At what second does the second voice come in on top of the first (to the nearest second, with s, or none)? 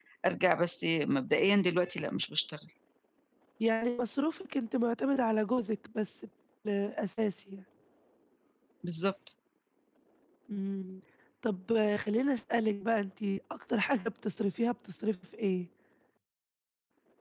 none